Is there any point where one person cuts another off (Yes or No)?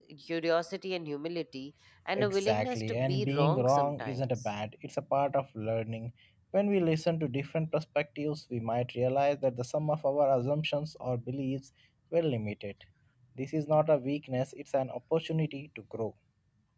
Yes